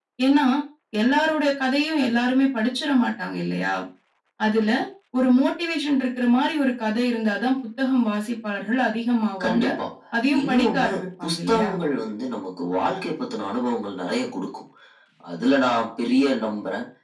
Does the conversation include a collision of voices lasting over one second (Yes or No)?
Yes